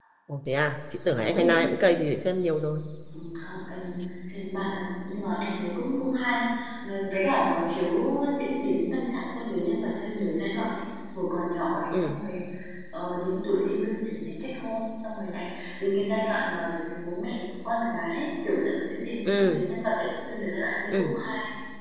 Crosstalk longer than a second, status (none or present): none